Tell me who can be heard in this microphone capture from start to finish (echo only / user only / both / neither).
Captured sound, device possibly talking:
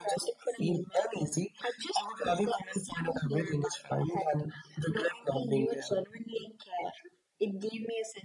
echo only